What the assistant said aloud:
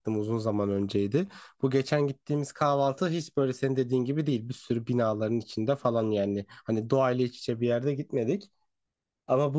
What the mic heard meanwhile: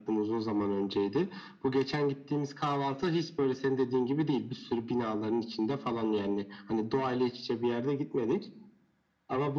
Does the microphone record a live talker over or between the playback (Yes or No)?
No